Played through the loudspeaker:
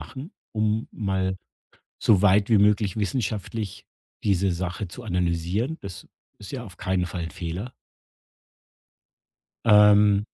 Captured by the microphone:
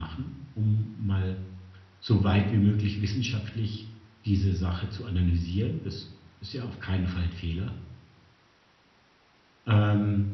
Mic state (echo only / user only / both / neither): echo only